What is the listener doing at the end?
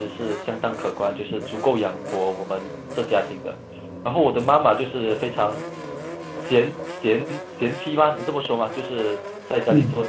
listening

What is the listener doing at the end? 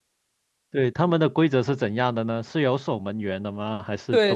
taking over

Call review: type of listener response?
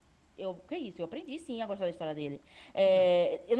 listening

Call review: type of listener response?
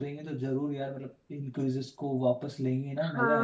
taking over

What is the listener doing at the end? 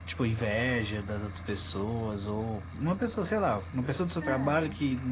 listening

